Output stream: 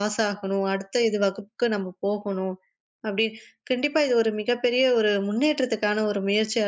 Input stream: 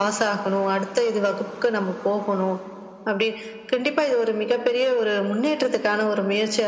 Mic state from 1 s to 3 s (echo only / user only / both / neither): echo only